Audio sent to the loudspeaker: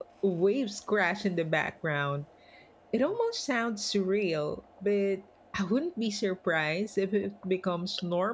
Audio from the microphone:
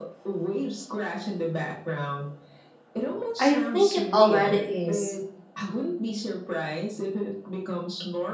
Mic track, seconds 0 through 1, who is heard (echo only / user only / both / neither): echo only